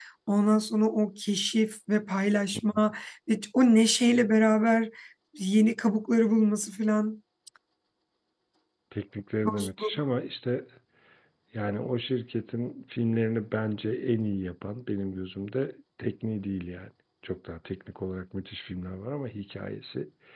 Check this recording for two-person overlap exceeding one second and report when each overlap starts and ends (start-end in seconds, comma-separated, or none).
none